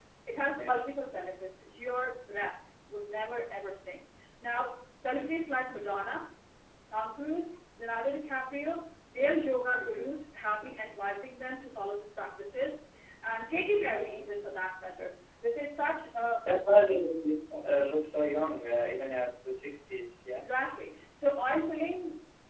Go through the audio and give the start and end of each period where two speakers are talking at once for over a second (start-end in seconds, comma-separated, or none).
none